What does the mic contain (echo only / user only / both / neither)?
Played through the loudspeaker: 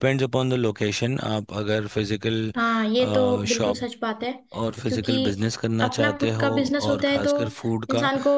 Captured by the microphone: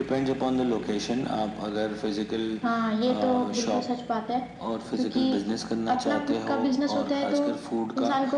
echo only